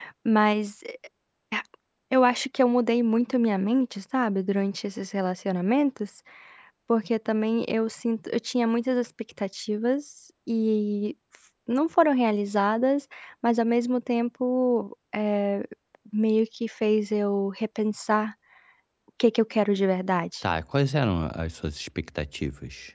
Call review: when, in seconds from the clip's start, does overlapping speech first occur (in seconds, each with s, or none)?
none